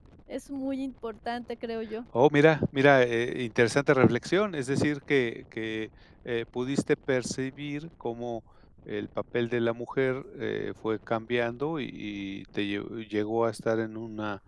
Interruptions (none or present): none